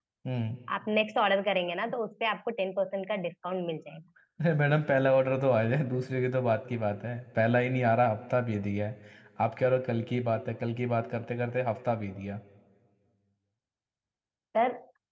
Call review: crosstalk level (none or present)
none